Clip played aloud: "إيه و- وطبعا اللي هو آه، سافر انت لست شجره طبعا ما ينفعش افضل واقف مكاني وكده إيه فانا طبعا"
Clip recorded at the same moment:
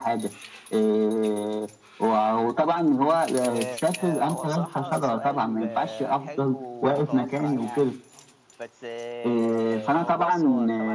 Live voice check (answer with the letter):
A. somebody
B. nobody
A